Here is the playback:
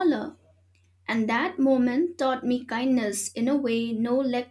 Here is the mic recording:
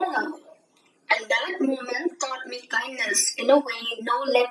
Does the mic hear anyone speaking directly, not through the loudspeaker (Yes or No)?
No